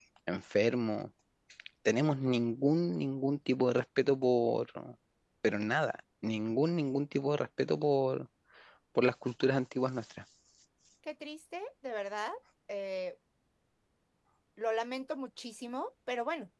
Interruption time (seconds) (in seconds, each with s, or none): none